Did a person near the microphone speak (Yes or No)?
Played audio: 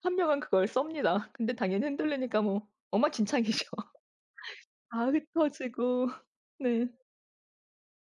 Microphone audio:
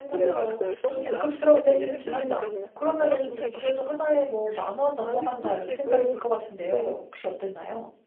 Yes